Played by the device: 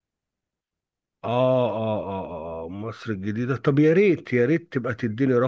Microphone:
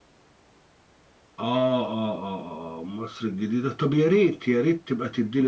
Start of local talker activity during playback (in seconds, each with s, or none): none